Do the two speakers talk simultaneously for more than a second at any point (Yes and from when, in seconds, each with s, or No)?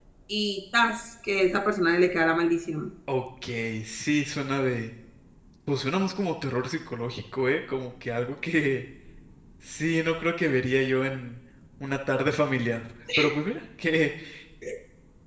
No